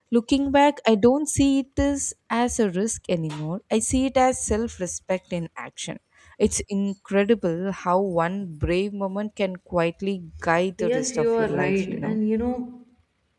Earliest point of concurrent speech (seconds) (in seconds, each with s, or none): 10.8 s